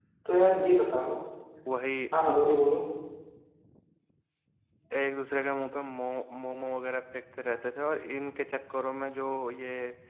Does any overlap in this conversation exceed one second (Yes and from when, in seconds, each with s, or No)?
No